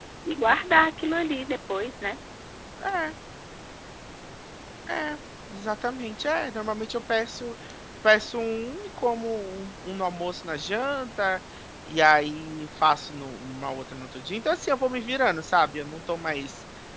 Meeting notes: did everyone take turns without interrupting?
Yes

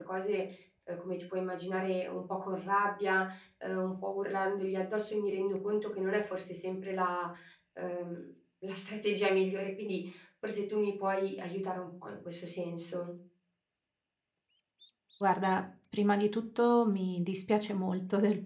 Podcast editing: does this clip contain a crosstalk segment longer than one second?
No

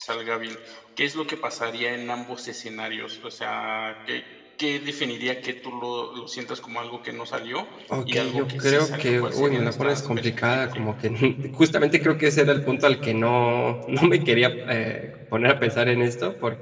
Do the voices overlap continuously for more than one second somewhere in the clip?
Yes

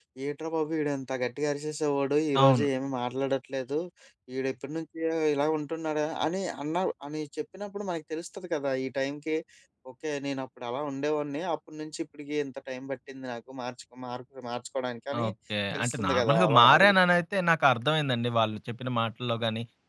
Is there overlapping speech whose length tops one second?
Yes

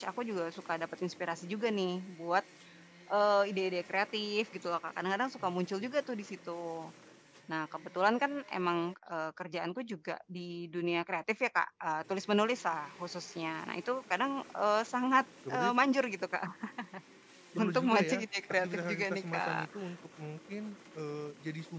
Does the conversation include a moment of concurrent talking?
Yes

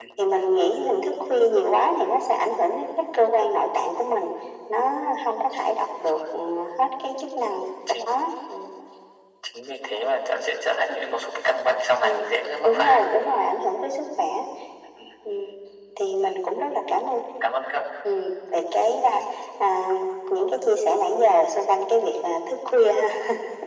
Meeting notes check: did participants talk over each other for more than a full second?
No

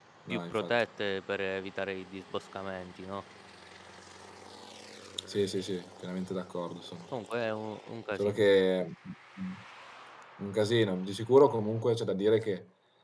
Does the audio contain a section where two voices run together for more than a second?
No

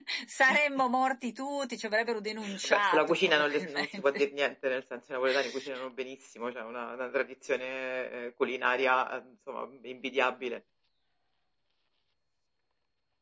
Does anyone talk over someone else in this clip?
Yes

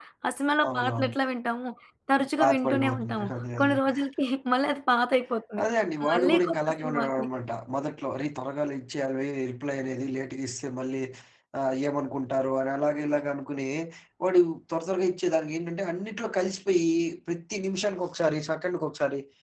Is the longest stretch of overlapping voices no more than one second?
No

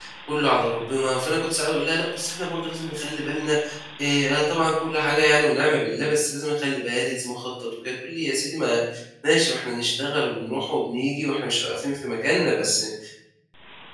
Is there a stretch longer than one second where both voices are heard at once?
No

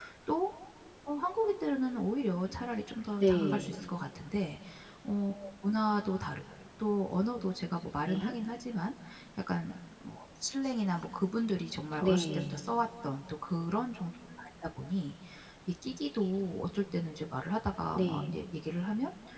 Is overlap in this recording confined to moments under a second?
Yes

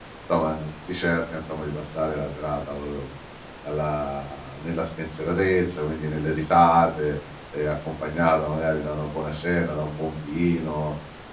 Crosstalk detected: No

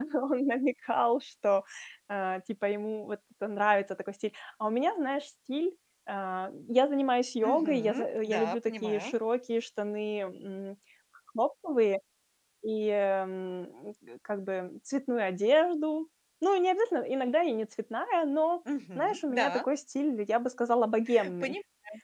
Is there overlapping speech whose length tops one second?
Yes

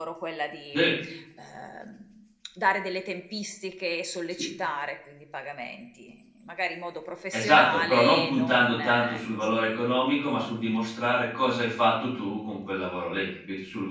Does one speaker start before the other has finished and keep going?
Yes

